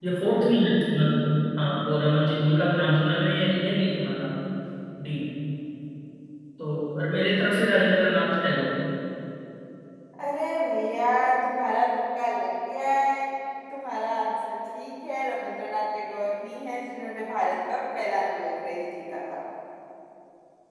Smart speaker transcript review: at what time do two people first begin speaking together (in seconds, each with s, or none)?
none